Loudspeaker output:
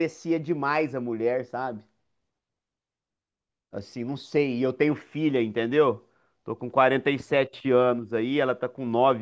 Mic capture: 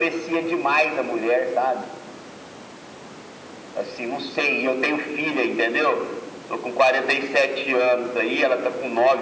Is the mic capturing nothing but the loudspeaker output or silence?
Yes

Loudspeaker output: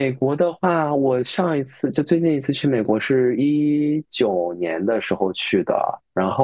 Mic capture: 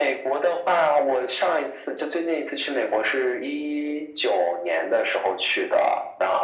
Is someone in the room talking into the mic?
No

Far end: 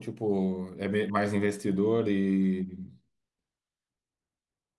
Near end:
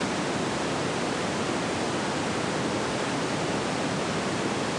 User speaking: No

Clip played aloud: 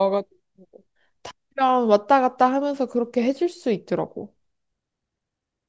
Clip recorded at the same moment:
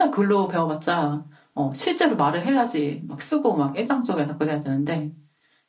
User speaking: Yes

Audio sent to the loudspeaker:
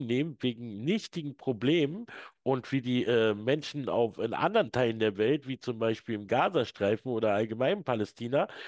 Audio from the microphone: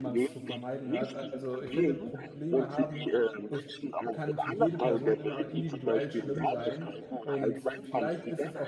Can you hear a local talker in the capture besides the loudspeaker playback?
Yes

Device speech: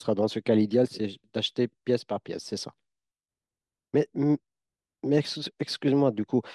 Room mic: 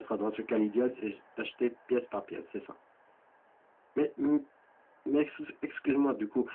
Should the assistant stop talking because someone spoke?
No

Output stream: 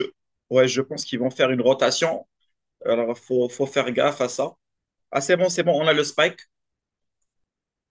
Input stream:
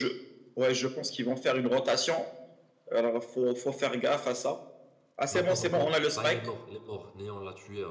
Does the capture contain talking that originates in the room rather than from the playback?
Yes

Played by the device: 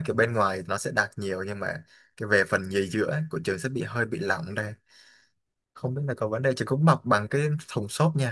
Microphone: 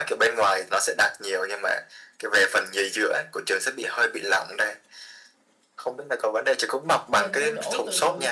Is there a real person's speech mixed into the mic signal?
Yes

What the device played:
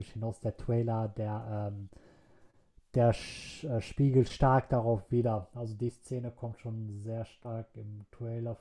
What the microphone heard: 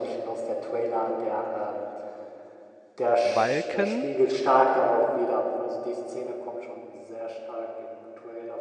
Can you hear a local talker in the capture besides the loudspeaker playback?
Yes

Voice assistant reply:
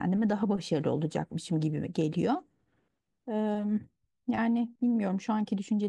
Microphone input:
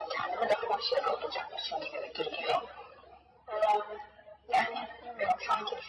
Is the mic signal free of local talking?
Yes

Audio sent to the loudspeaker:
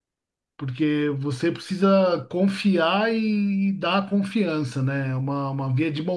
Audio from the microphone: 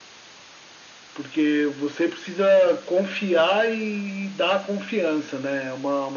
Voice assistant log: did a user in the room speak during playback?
No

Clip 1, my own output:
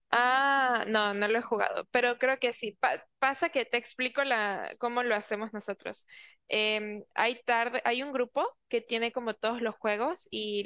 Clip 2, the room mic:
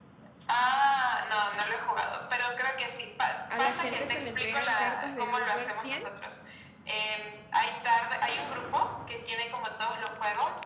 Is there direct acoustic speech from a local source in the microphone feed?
Yes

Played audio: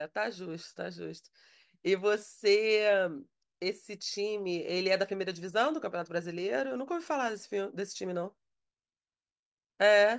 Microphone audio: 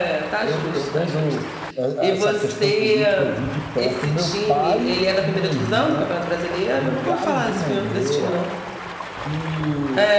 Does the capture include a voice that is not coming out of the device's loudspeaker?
Yes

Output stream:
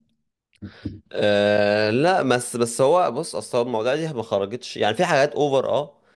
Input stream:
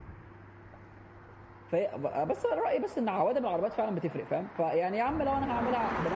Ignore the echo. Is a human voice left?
Yes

